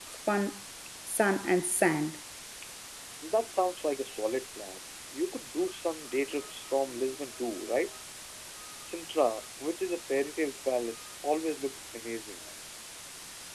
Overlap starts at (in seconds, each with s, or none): none